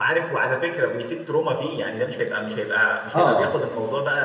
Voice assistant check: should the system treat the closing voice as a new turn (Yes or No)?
No